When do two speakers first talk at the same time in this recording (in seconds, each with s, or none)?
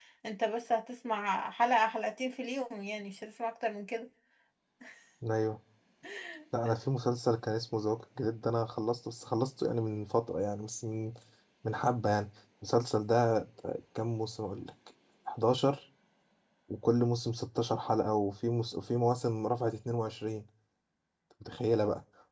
none